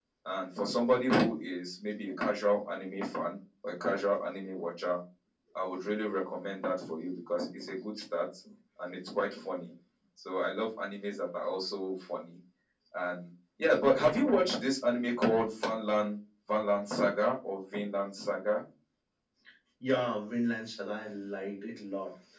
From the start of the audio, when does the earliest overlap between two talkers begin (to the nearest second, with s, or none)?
none